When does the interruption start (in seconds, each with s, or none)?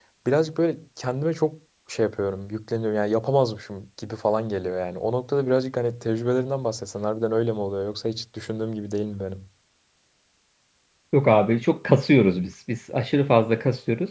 none